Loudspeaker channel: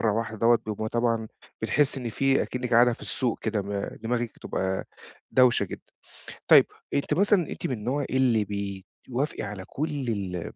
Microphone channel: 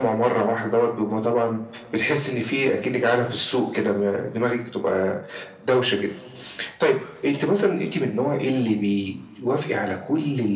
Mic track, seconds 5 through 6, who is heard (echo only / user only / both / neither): echo only